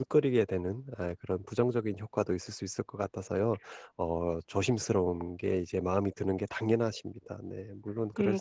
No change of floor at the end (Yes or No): No